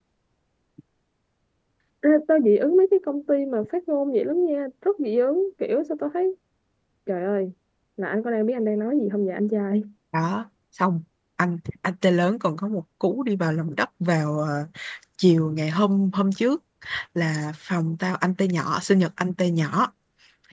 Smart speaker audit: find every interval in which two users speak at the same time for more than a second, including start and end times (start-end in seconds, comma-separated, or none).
none